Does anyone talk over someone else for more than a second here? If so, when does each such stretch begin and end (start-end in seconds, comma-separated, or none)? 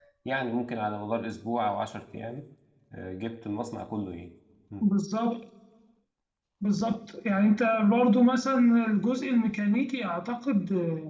none